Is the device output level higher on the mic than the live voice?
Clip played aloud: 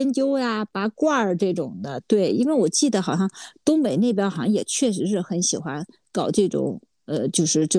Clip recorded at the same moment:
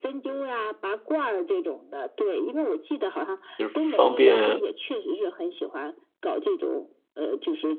No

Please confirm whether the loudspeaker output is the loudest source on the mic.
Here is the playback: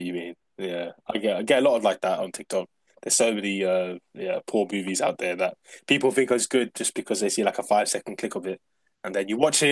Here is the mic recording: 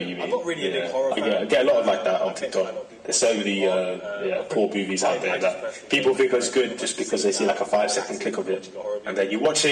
Yes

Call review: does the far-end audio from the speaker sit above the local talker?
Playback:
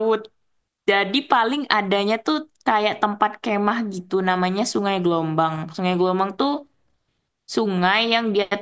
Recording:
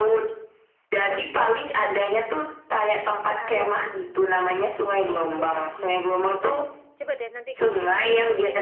Yes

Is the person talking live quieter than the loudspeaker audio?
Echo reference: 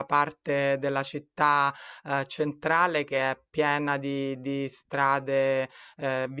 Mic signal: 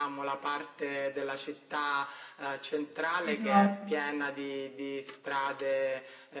No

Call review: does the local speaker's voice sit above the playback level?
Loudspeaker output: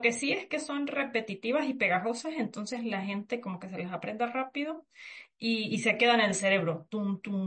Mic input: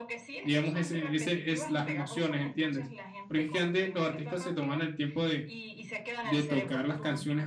Yes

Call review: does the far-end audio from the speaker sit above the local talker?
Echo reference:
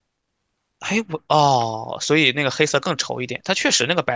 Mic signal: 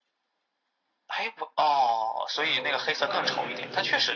Yes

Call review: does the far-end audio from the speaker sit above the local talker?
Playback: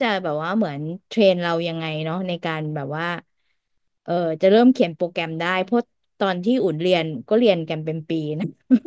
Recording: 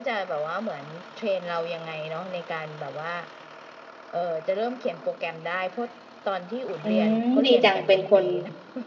No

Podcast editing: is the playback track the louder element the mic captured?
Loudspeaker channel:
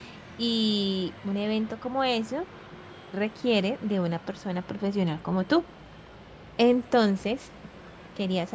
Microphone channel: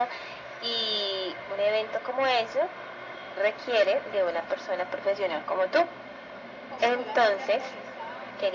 Yes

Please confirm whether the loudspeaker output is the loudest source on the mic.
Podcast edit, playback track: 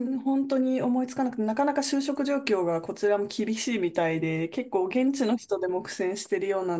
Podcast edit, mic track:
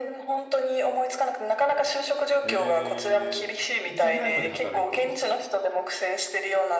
Yes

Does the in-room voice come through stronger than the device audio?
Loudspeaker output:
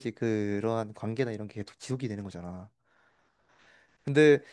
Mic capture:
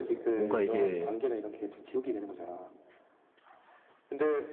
Yes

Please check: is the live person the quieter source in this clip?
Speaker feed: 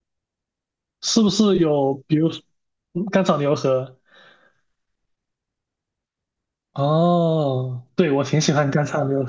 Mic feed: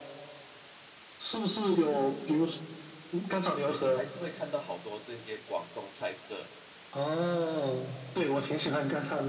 Yes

